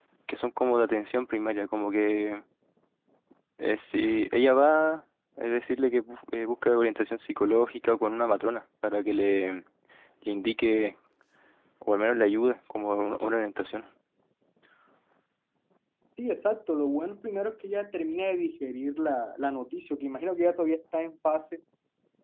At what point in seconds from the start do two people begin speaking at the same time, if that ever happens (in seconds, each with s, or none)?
none